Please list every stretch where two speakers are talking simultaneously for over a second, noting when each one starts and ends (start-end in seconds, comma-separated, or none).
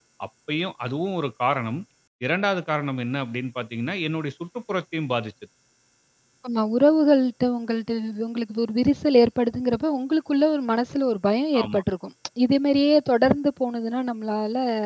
none